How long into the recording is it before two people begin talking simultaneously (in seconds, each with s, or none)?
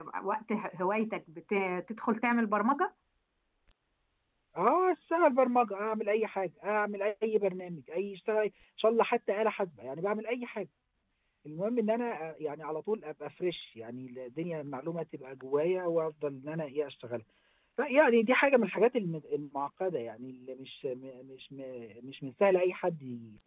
none